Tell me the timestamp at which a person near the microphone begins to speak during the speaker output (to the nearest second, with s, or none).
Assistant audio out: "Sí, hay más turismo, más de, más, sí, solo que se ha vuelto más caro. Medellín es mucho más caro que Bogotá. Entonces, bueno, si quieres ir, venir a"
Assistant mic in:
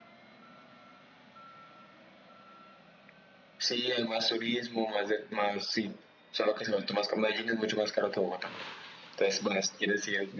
none